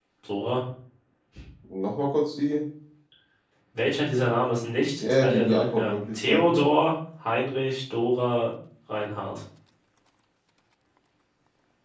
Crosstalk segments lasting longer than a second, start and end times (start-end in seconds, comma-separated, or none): 5.0-6.6